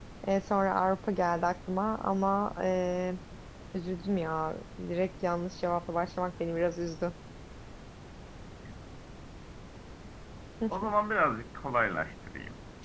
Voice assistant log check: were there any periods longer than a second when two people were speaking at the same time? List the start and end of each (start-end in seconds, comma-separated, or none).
none